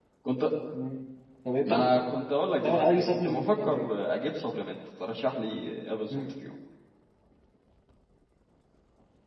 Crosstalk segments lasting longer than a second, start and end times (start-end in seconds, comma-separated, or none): 2.6-3.9